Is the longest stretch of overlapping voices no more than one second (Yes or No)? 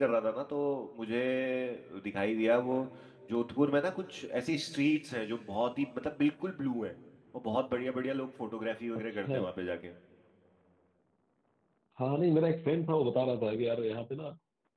Yes